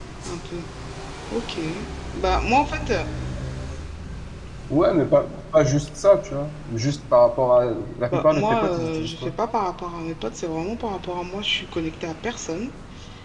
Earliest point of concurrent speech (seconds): 8.1 s

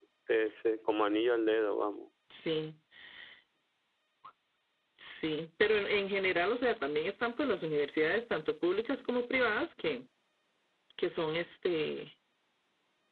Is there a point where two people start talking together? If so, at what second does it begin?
none

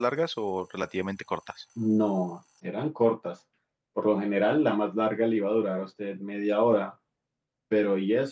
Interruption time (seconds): none

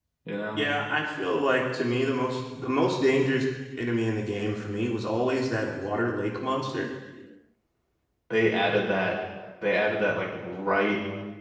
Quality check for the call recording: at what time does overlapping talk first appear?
none

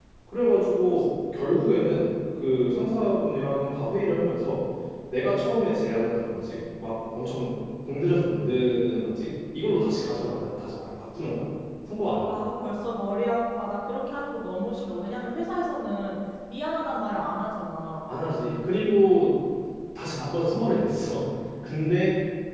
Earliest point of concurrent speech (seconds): none

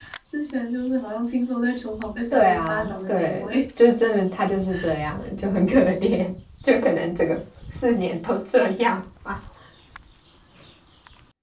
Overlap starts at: 2.3 s

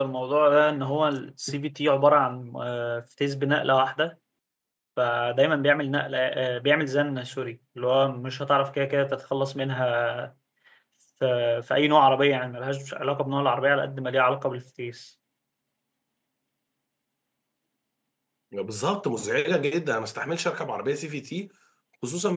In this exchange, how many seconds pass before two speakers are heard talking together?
none

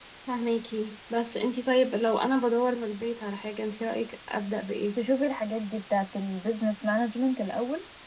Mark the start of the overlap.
none

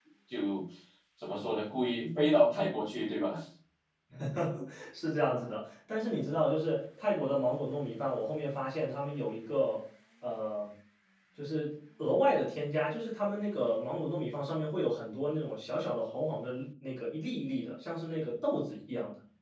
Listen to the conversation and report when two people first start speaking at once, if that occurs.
none

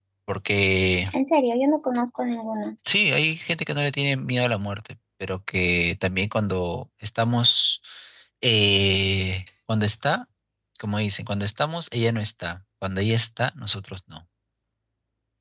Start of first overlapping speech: none

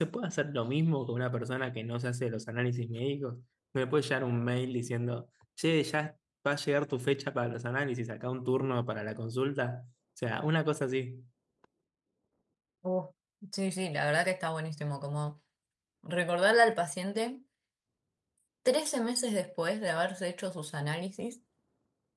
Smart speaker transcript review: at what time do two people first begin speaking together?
none

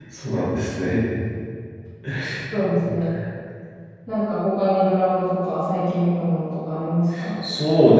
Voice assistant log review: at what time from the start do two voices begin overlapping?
none

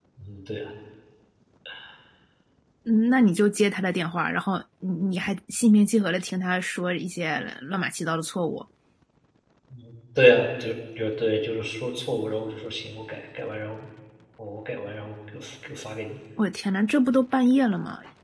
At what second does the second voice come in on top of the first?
none

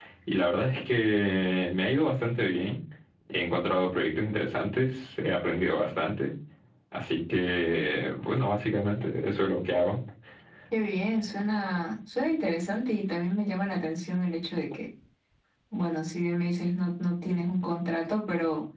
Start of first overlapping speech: none

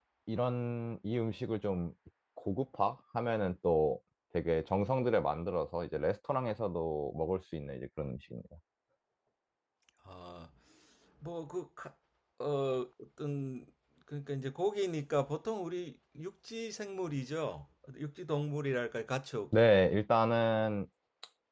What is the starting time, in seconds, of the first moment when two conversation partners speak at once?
none

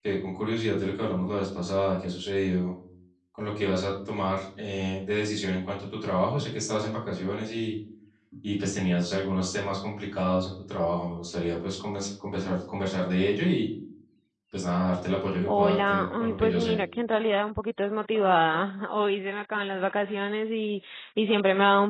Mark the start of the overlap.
15.5 s

